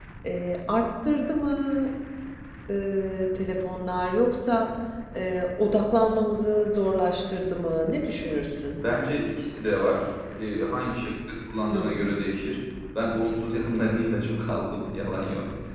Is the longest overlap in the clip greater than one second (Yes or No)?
No